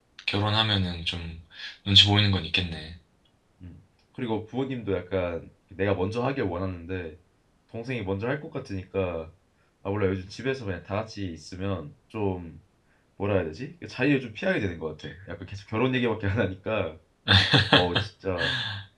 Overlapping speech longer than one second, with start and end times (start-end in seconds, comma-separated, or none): none